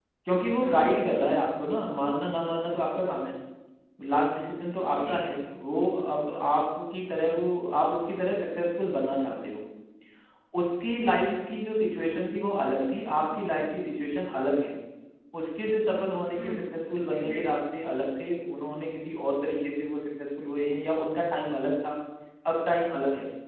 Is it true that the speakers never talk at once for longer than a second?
Yes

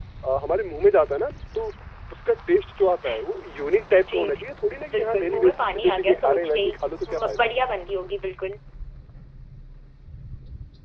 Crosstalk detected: Yes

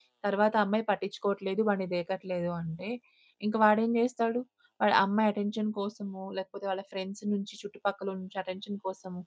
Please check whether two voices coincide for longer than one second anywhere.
No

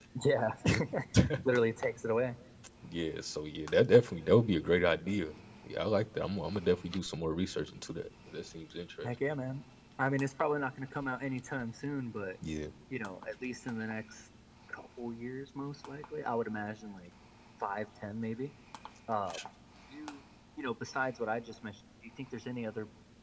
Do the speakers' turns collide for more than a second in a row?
No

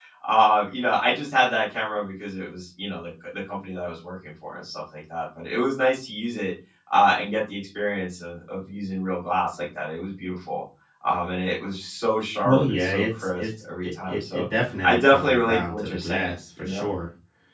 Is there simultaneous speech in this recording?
Yes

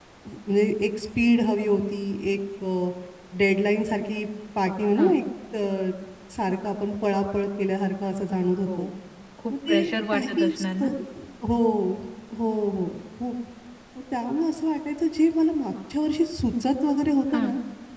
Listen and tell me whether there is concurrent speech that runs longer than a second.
Yes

